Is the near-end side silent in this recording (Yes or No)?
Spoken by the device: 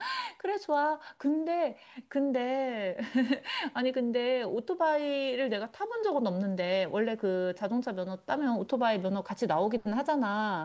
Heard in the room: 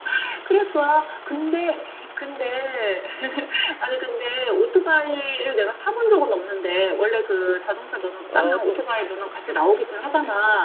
No